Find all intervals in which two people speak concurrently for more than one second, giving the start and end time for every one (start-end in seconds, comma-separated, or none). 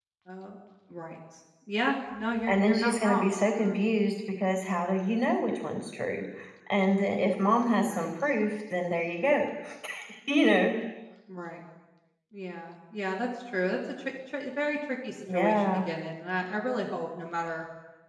2.5-3.9